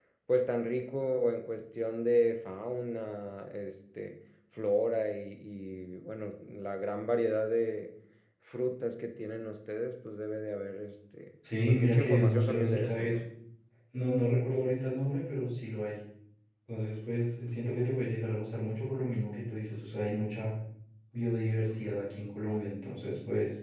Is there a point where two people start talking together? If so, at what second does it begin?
11.4 s

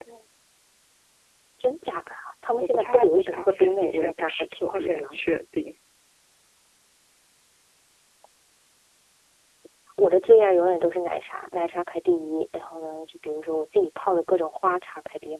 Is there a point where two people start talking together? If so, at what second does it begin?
2.5 s

